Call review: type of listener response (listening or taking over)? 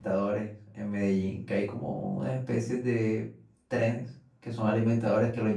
listening